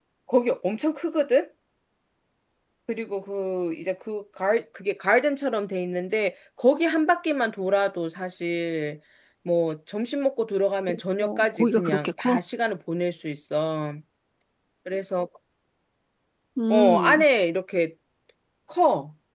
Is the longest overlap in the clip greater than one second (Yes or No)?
Yes